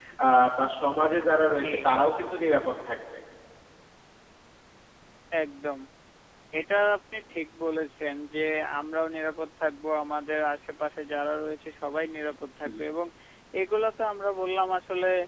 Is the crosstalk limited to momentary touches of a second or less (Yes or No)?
Yes